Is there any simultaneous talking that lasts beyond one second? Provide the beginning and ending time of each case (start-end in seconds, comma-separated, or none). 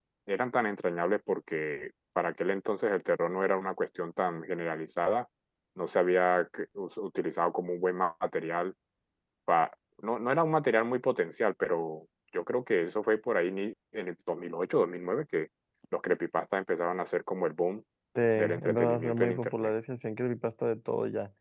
18.4-19.7